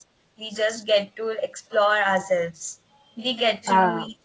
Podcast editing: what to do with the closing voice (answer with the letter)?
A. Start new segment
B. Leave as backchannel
B